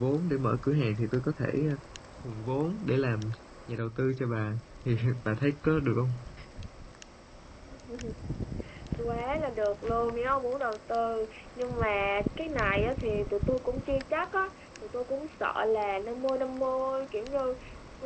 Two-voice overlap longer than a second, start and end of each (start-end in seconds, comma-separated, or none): none